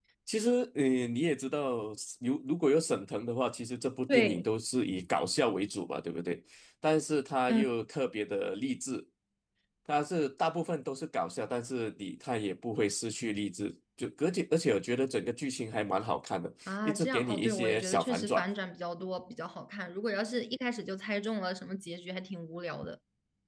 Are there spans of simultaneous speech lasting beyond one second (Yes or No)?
Yes